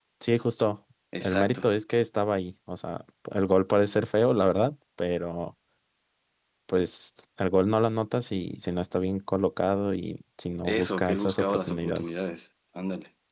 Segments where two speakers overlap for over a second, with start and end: 10.6-12.0

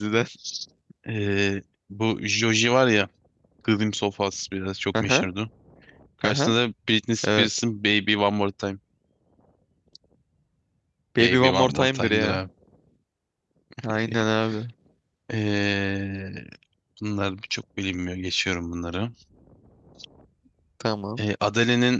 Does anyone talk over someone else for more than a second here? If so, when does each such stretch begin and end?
11.2-12.4

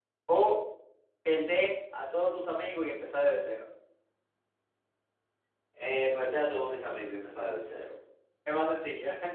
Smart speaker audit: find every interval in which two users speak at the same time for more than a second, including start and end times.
none

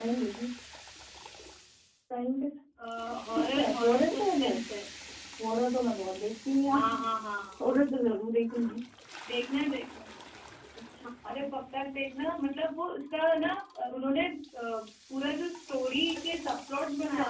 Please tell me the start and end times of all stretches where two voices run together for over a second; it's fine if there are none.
3.4-4.5

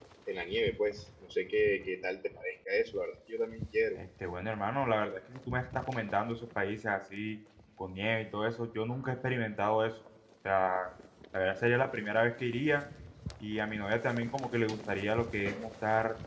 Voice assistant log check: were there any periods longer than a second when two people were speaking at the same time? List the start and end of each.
none

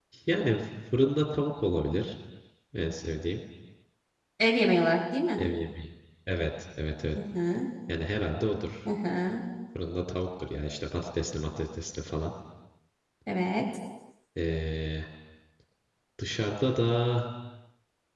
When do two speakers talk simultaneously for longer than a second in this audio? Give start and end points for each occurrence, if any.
none

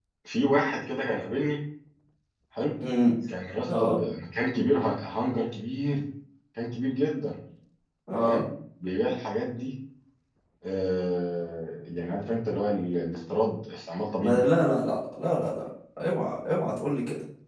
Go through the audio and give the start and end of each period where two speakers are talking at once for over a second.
none

